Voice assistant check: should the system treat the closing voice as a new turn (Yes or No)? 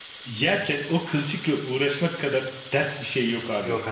No